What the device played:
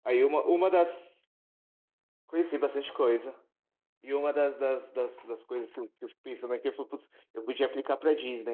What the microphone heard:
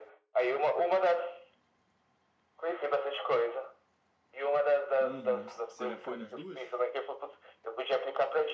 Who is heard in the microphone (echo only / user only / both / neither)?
both